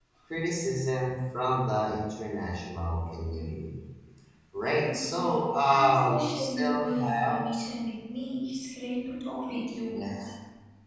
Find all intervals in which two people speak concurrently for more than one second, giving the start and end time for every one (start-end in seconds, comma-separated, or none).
4.8-7.4